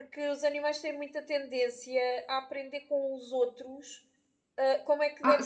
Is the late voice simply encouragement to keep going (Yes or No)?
No